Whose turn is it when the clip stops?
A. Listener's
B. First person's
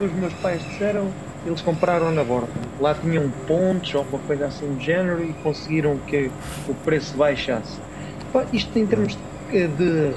B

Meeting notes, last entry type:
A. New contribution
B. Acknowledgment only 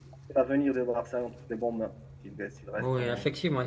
A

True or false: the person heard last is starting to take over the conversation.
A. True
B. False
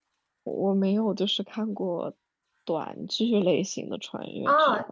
A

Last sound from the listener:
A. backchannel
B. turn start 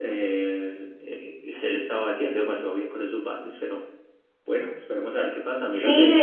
B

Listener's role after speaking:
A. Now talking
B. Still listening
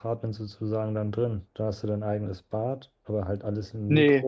A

